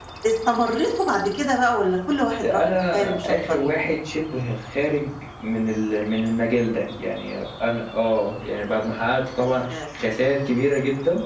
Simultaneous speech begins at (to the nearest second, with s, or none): 2 s